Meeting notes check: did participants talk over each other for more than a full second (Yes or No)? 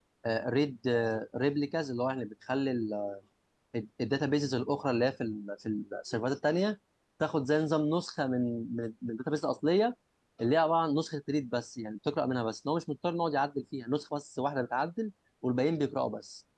No